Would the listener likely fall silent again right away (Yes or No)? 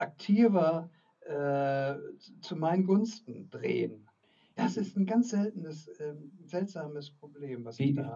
No